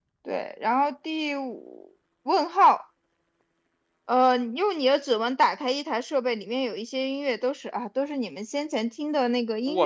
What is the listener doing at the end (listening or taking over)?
taking over